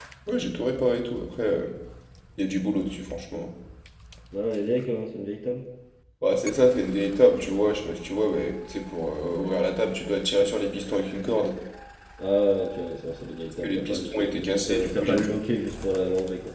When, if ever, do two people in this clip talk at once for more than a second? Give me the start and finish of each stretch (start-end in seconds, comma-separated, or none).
13.6-15.3